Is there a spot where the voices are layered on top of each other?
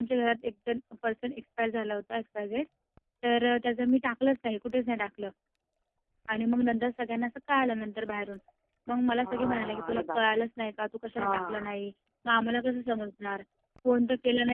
Yes, from 9.1 s

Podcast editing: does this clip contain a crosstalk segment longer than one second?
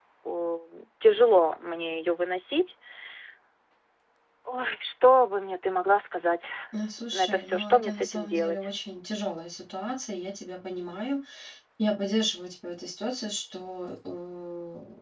Yes, from 7.1 s

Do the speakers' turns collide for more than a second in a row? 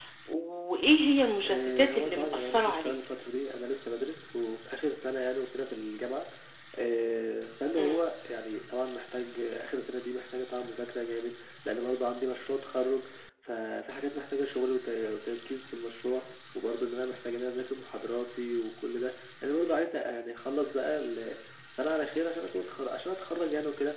Yes, from 1.4 s

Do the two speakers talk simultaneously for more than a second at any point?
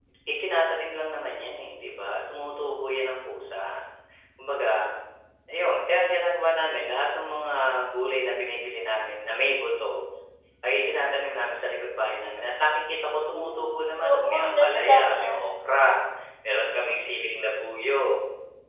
Yes, from 13.3 s

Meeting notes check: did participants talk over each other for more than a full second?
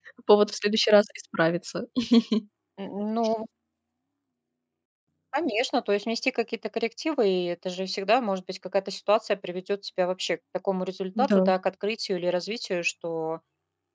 No

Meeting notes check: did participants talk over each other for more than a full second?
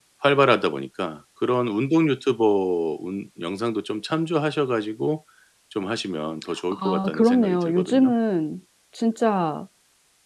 Yes, from 6.7 s

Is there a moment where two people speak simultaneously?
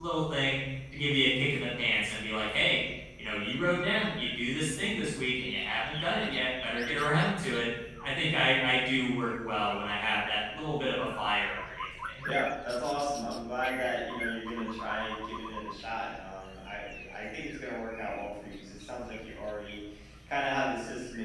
No

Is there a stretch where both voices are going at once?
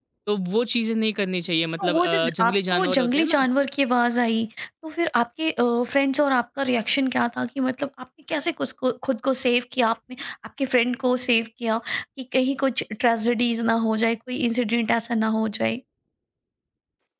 Yes, from 1.8 s

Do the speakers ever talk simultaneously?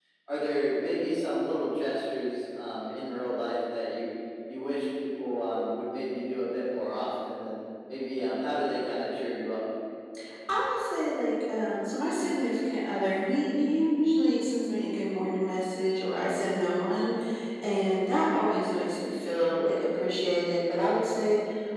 No

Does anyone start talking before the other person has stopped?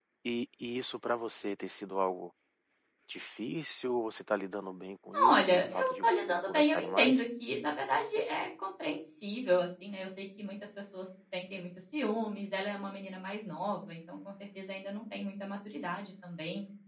Yes, from 5.1 s

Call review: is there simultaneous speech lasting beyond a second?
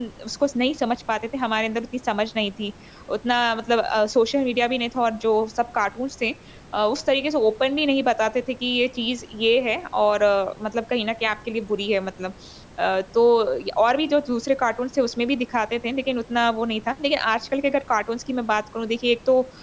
No

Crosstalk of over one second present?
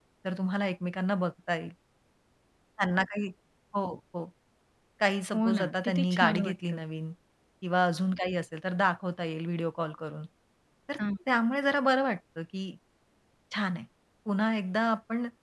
Yes, from 5.3 s

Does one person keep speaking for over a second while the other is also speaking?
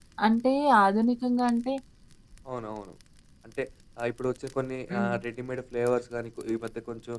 No

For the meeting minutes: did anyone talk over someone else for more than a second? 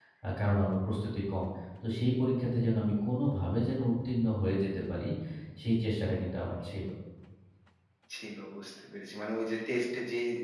No

